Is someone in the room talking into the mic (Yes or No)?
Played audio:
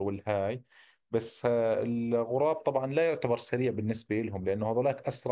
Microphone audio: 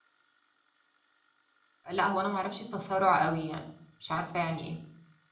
Yes